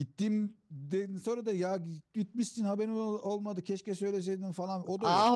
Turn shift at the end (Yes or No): Yes